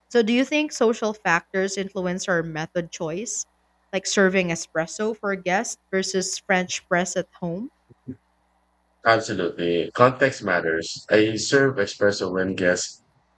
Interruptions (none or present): none